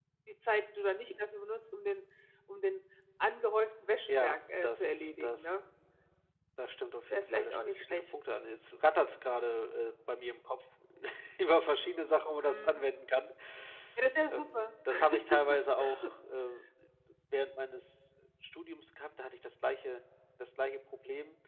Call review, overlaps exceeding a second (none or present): present